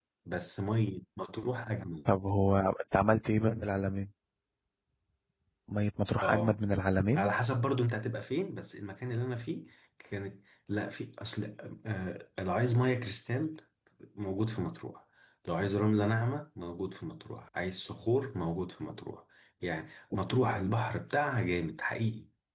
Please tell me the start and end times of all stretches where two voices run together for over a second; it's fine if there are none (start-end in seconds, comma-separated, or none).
none